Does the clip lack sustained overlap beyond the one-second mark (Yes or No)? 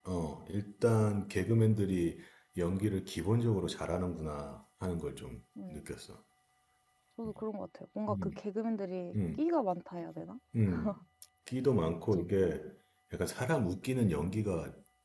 Yes